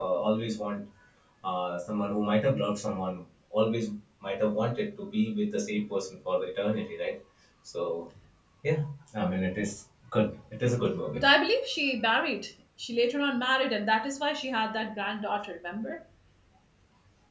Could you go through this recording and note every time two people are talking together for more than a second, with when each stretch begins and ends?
none

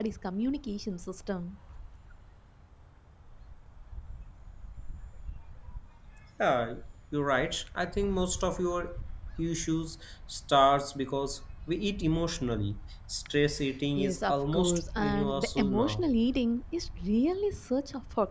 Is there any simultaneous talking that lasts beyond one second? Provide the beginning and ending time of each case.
14.0-16.1

